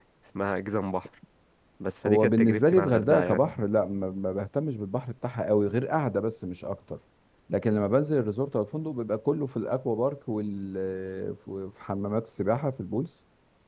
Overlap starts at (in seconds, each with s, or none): 2.0 s